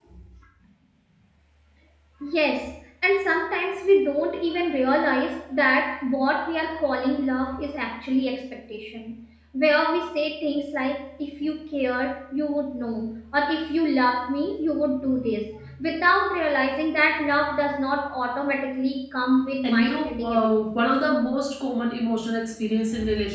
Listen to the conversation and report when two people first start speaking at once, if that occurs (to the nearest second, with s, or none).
20 s